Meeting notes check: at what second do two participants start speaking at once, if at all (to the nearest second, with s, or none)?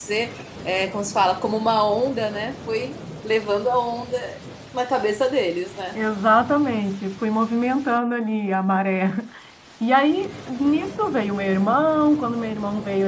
none